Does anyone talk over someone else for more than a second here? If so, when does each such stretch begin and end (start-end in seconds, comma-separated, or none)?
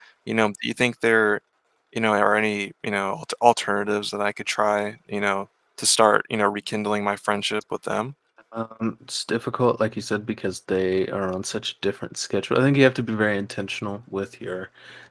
none